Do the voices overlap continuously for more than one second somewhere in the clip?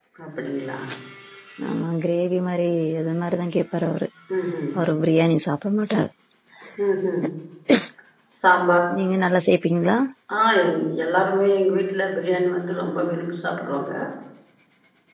No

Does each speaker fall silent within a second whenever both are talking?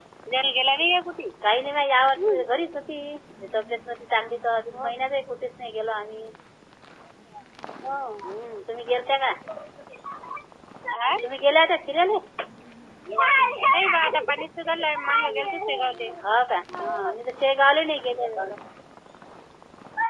Yes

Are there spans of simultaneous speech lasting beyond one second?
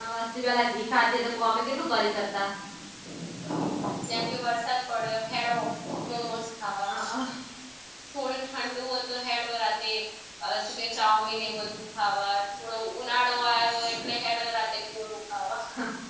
No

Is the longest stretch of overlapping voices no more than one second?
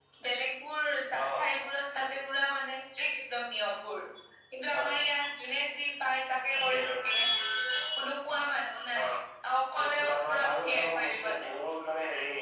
No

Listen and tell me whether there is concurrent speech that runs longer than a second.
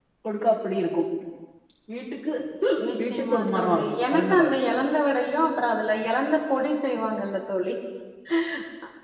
Yes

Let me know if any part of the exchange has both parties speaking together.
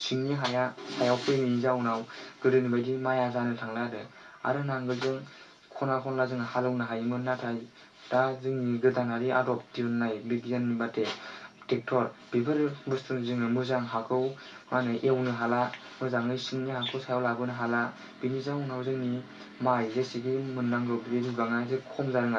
No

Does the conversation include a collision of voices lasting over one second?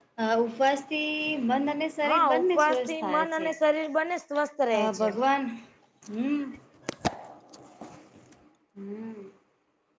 Yes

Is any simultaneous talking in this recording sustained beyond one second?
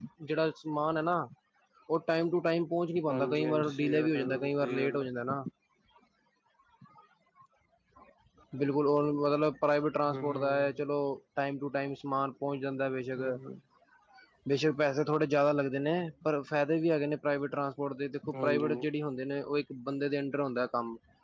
Yes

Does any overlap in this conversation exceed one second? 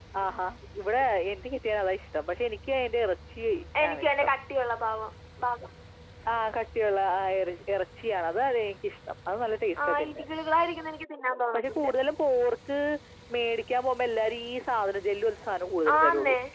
No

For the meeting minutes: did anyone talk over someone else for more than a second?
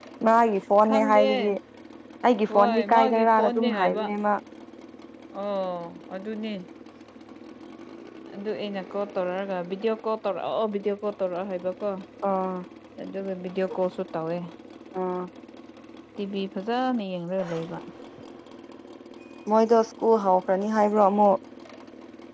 Yes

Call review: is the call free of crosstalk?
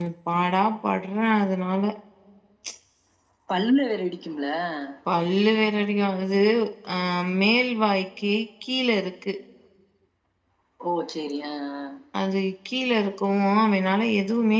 Yes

